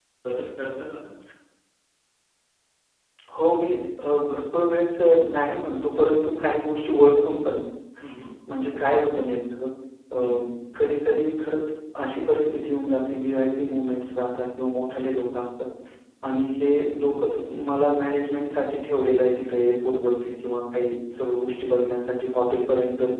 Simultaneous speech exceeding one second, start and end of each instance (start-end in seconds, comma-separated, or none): none